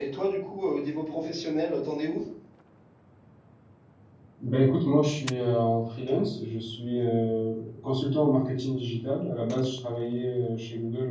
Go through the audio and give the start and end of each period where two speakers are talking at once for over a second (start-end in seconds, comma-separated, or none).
none